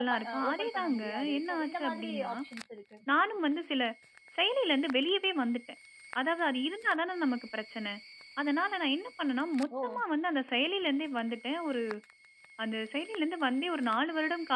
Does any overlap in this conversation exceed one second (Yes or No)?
Yes